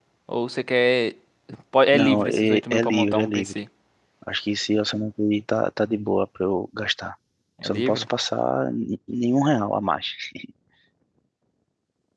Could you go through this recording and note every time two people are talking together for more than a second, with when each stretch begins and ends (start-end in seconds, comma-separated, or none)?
1.9-3.6